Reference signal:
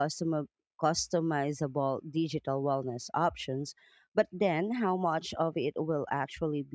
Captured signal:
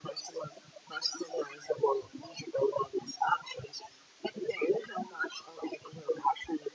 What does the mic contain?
echo only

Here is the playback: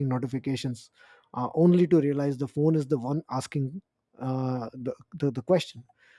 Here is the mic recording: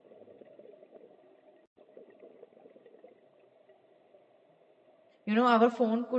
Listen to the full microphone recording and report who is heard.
user only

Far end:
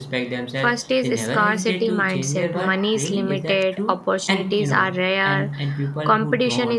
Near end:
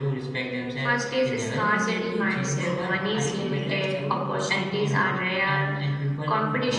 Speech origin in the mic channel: both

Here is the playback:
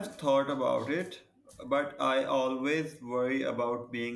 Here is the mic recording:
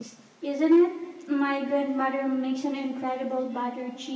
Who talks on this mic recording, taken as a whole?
user only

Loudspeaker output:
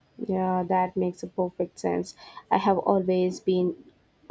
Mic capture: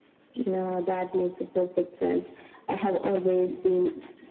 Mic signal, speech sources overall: echo only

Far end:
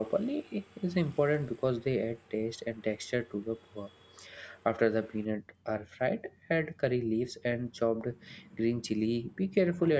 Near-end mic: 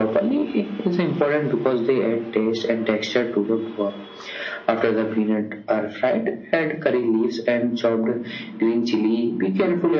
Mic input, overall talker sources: echo only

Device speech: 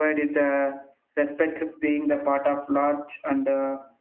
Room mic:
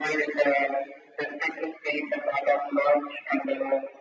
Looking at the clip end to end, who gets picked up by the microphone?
echo only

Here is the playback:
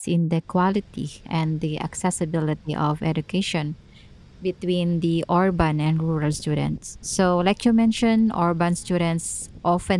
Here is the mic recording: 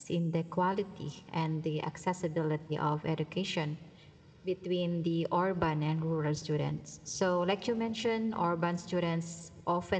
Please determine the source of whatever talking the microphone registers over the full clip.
echo only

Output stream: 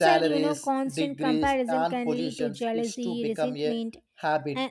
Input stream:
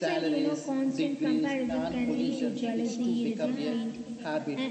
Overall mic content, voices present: both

